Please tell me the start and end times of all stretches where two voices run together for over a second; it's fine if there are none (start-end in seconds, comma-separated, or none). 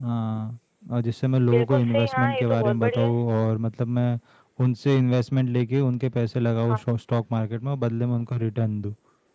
1.5-3.2